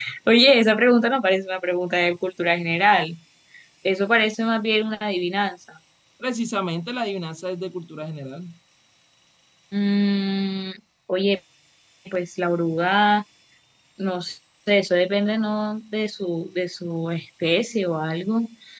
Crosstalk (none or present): none